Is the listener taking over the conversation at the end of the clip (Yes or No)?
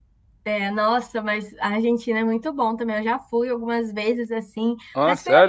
No